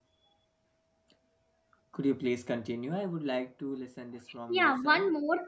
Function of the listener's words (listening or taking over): taking over